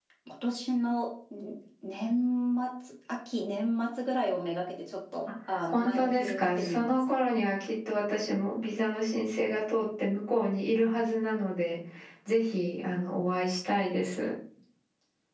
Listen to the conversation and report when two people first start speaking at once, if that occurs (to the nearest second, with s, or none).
6 s